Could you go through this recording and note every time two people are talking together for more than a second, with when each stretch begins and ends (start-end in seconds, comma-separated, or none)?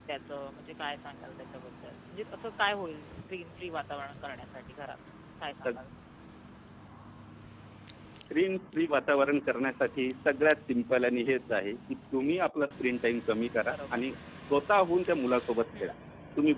none